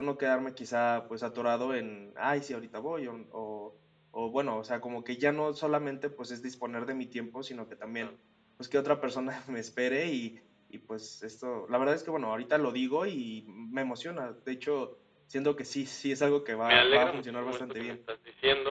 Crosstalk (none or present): present